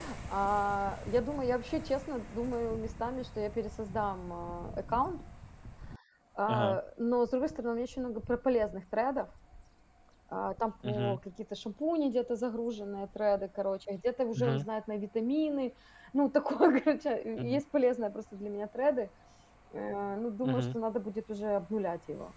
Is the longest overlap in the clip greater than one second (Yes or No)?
No